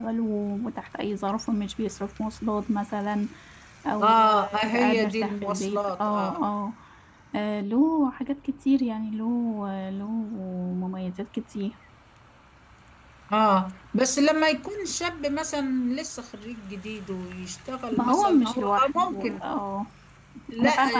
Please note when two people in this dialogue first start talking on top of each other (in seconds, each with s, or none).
4.0 s